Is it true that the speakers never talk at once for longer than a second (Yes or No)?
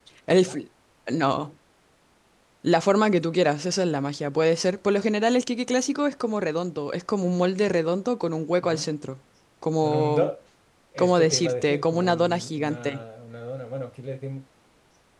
No